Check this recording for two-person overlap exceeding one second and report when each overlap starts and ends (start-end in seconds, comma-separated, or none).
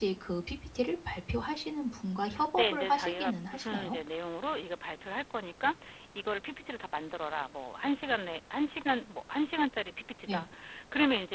2.6-4.0